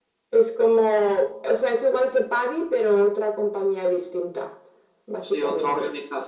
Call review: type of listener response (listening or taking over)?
taking over